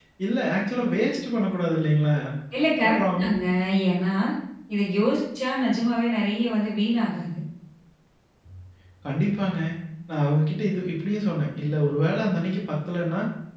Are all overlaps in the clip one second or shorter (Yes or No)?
Yes